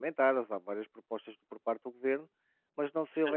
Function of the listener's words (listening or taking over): listening